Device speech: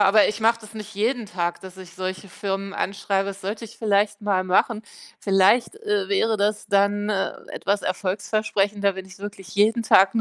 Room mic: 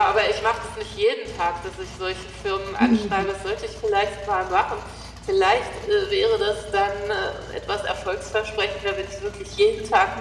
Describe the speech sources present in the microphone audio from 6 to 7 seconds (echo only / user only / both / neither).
echo only